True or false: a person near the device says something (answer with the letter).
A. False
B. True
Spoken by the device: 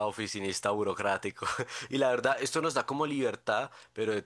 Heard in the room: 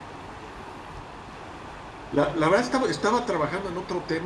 B